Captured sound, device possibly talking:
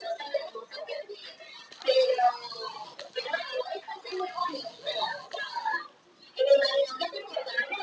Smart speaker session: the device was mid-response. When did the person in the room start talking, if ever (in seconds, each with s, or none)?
none